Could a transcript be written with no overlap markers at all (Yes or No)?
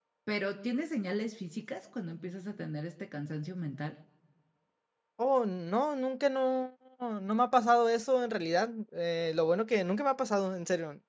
Yes